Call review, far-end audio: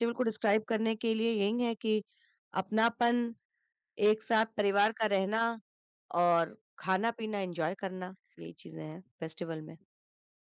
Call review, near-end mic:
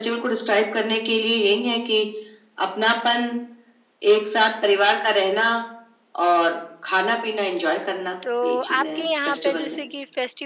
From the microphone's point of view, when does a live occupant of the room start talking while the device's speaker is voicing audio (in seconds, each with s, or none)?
8.2 s